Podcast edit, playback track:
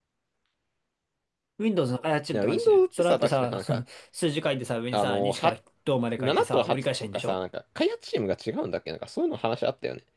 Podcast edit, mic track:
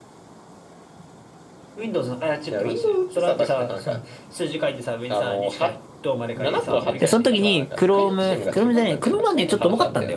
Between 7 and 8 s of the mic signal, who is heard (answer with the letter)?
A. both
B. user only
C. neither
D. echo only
A